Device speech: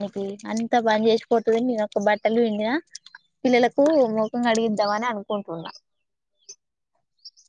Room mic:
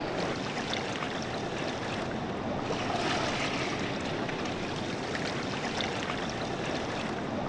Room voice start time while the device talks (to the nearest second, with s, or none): none